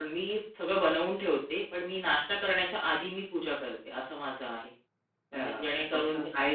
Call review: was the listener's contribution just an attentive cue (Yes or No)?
No